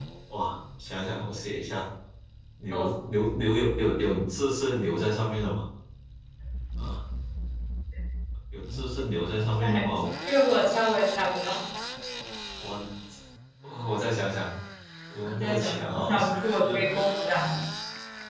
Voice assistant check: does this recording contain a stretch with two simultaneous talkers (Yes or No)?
Yes